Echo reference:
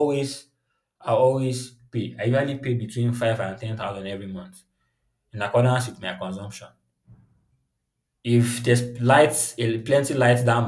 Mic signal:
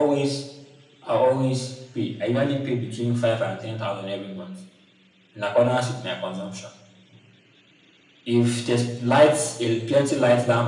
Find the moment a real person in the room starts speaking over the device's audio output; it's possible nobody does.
none

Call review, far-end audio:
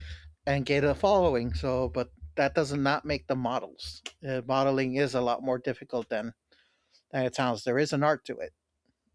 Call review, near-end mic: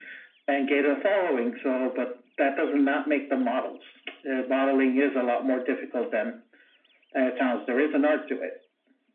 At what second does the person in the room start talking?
none

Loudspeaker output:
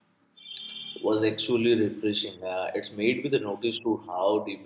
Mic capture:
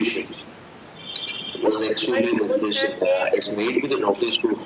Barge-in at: 2.1 s

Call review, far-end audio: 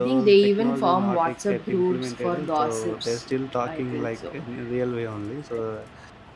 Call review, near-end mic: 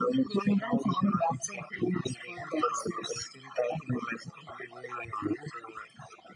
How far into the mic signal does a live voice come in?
none

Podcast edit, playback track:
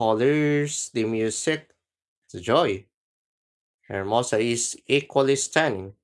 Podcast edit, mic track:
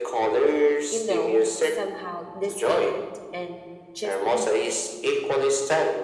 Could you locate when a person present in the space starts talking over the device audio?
0.9 s

